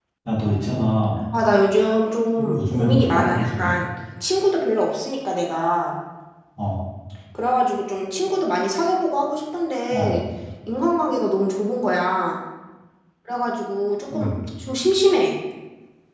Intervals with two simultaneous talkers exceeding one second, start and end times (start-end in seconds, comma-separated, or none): 2.4-3.7